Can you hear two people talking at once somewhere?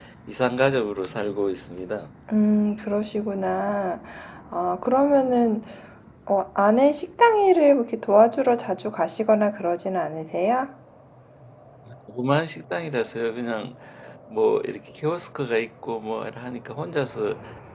No

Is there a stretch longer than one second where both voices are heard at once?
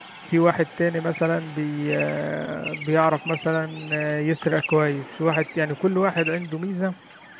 No

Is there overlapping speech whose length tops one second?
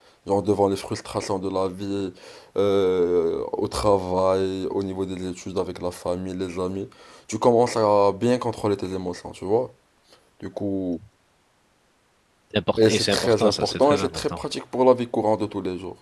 Yes, from 12.9 s

